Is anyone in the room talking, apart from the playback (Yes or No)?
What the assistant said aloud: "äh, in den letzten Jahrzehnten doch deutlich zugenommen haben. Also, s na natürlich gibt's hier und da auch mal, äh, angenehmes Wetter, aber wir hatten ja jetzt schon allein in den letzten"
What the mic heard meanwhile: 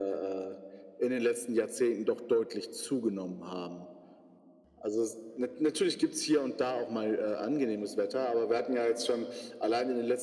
No